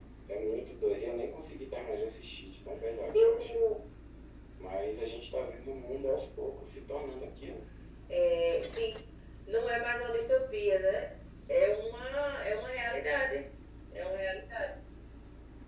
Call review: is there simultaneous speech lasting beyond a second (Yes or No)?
No